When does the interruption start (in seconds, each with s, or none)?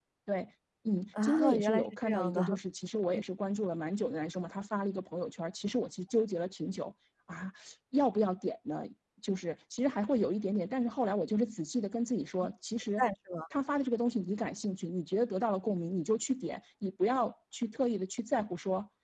1.2 s